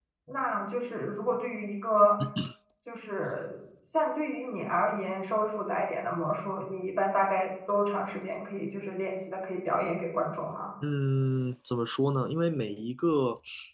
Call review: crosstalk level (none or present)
none